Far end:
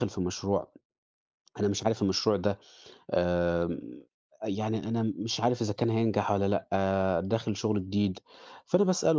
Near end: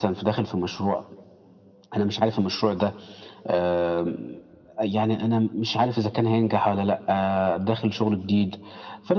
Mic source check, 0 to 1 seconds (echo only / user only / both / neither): echo only